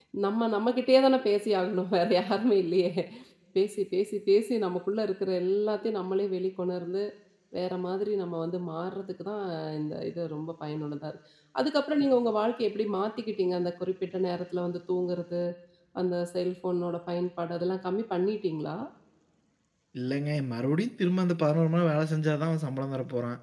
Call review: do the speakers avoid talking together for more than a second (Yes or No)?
Yes